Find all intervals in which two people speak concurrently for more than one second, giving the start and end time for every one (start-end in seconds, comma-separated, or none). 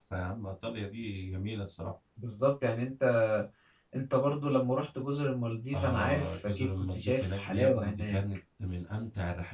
5.7-8.2